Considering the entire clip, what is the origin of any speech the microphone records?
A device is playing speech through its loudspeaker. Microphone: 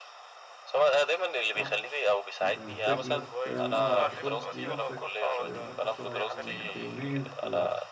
both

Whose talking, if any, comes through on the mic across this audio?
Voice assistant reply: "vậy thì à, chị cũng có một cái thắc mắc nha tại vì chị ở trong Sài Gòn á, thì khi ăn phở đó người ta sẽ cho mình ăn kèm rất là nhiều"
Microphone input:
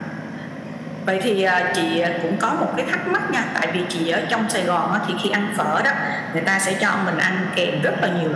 echo only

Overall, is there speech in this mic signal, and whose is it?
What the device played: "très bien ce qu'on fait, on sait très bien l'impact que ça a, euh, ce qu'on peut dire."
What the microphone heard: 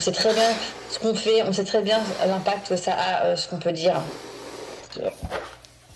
echo only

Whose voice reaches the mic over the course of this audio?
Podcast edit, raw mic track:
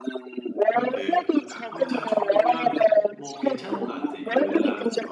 both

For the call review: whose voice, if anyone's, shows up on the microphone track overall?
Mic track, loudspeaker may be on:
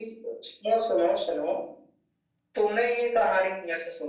echo only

